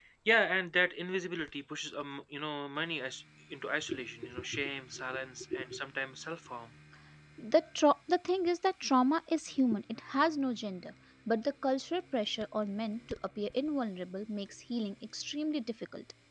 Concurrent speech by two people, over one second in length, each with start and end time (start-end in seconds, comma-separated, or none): none